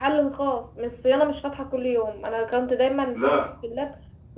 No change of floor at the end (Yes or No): Yes